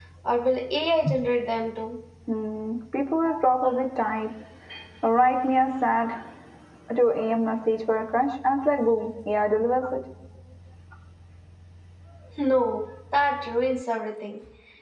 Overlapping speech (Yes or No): No